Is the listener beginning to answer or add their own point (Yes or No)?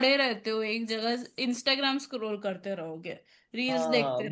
Yes